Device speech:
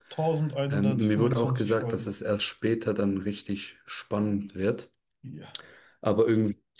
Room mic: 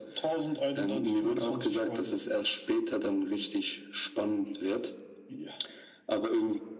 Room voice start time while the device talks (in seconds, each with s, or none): none